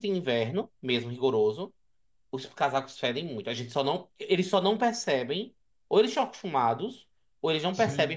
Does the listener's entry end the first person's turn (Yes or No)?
No